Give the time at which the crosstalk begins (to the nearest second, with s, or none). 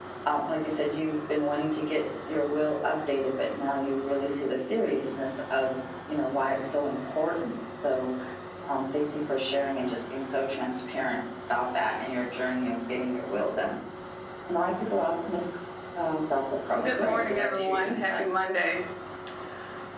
17 s